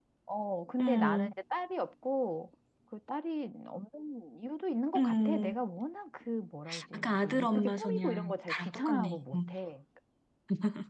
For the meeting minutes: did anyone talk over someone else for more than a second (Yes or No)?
Yes